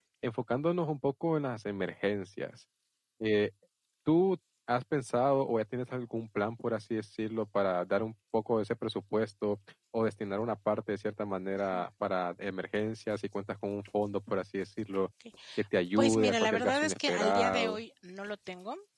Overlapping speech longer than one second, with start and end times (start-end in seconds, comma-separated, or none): 16.0-17.8